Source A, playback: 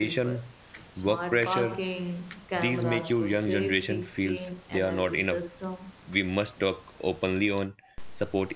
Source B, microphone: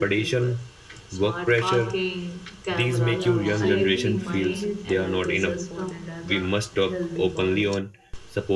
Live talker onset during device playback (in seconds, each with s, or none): 3.1 s